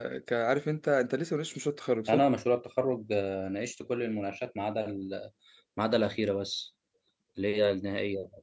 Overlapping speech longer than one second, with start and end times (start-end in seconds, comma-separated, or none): none